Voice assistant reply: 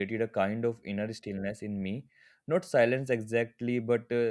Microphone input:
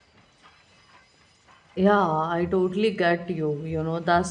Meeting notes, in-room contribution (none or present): present